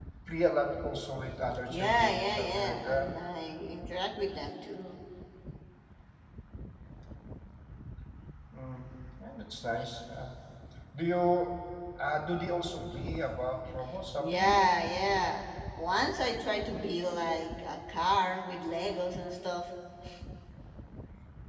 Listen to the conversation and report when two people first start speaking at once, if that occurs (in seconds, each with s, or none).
1.7 s